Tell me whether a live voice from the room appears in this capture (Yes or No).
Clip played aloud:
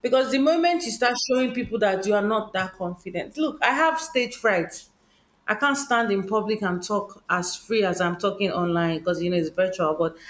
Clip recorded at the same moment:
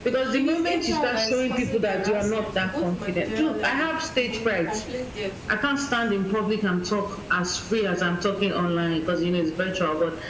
Yes